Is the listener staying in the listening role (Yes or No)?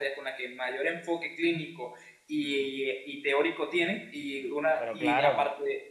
Yes